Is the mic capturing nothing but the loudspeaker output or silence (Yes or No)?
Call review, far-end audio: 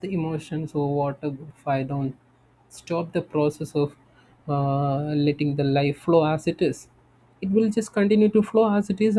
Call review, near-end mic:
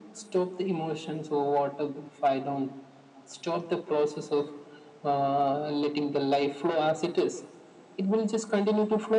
Yes